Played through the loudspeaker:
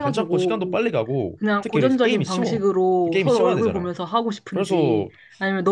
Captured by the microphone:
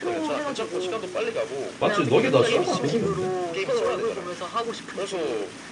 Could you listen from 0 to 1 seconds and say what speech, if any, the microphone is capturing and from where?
echo only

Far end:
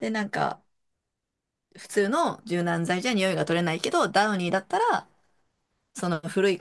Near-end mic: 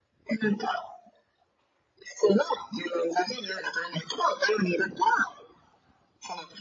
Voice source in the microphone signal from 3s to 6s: echo only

